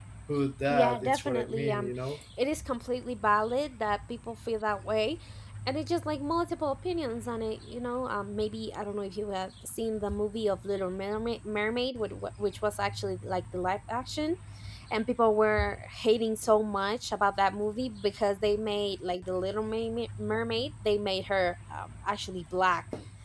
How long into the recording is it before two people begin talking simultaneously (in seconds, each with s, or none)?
0.7 s